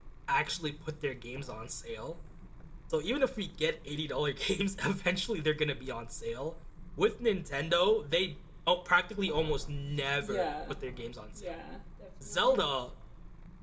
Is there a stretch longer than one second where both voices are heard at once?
No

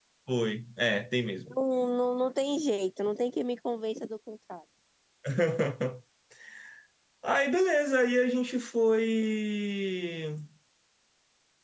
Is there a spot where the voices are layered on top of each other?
No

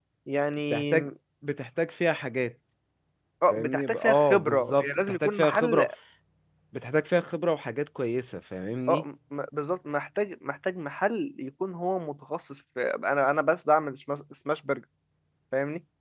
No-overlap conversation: No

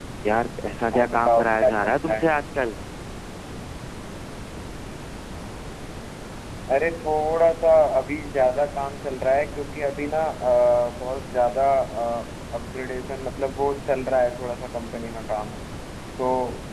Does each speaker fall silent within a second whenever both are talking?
No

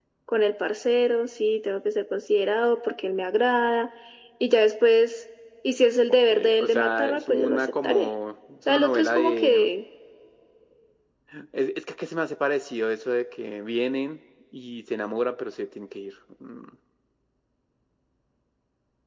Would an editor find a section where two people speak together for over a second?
Yes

